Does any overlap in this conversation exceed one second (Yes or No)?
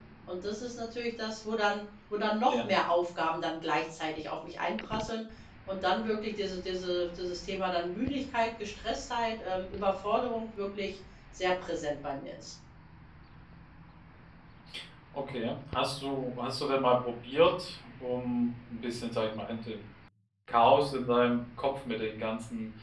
No